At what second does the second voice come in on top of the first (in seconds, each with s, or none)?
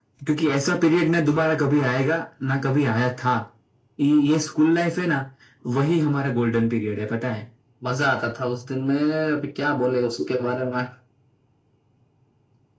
none